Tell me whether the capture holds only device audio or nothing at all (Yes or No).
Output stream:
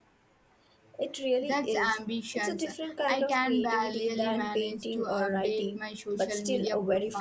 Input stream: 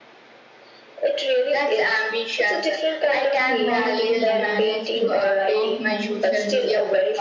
No